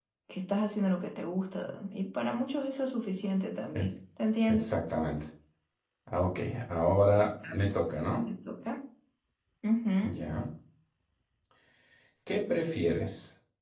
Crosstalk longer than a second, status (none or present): none